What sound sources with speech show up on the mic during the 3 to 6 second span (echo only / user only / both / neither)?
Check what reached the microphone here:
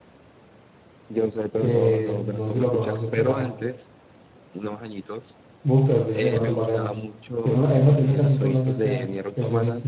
both